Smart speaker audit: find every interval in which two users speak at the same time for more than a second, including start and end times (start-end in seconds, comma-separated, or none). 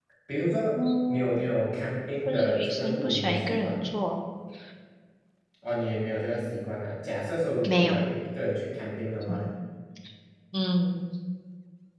2.2-3.9